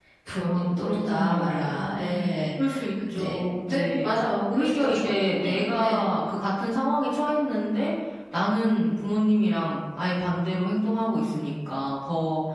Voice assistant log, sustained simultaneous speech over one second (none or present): present